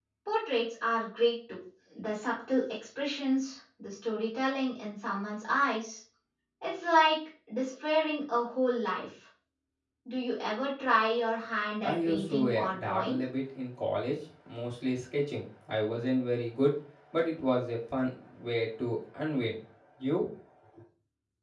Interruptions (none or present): present